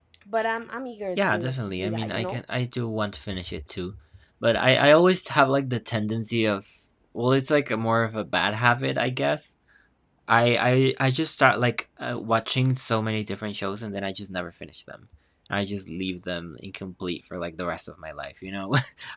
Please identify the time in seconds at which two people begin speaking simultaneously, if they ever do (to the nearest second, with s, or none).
1 s